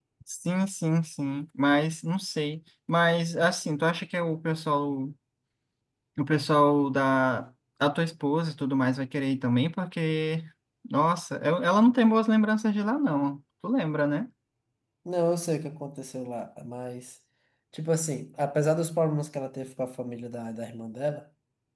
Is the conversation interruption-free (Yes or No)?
Yes